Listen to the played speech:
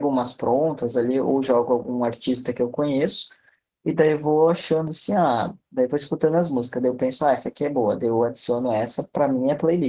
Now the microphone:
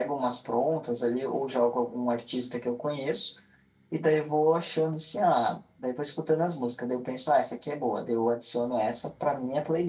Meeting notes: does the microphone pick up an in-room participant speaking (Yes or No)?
No